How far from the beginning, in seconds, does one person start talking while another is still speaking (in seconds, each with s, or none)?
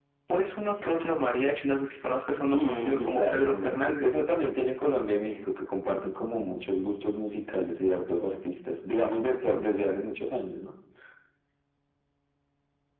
2.5 s